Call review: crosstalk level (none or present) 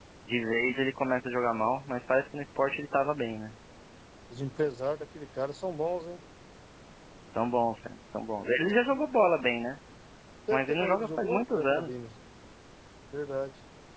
present